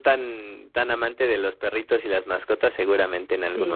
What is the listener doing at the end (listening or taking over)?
taking over